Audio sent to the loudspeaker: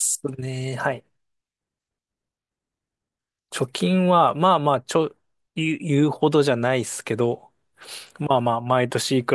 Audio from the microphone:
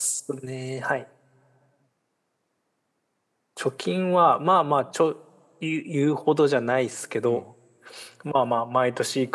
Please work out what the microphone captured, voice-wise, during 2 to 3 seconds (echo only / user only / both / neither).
neither